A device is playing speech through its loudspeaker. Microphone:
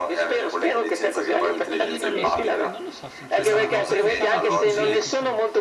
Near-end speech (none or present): present